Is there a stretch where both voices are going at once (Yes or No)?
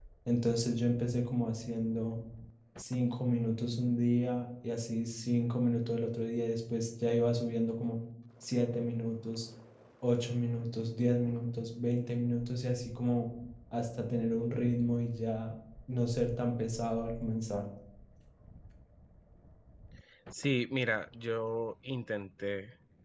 No